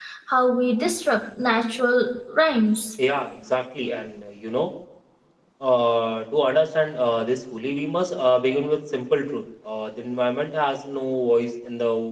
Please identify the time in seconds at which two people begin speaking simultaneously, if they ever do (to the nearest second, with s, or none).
none